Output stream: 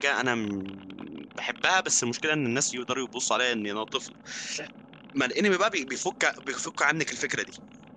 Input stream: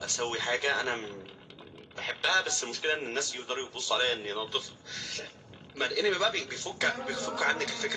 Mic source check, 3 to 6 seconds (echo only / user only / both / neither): echo only